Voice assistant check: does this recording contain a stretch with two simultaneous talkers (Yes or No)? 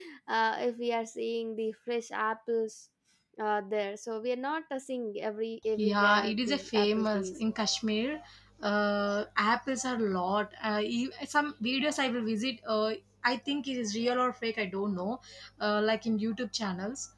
Yes